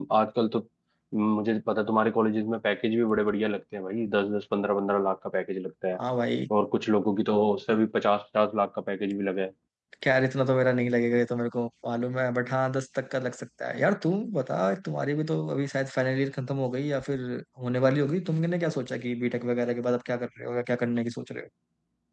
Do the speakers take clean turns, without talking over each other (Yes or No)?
Yes